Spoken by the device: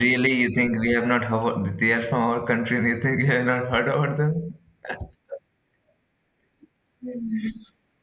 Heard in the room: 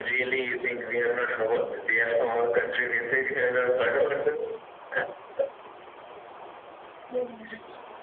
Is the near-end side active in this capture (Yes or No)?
No